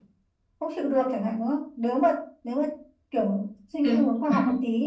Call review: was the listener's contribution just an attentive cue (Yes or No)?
Yes